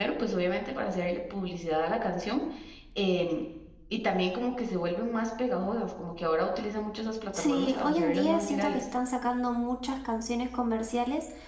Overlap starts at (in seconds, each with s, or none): 7.3 s